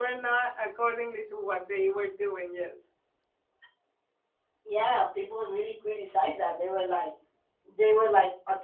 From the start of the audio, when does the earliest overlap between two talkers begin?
none

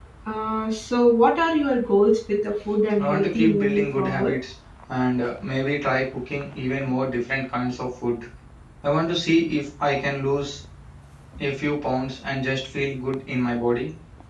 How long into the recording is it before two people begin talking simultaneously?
3 s

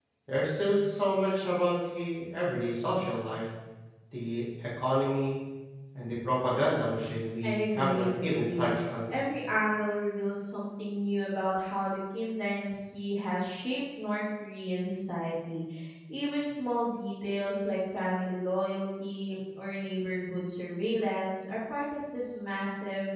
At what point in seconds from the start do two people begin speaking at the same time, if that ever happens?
7 s

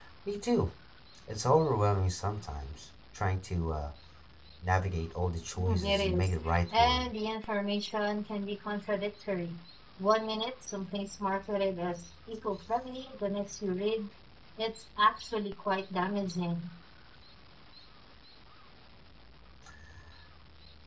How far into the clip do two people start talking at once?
6 s

